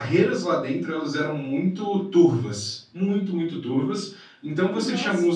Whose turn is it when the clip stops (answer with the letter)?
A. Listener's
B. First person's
B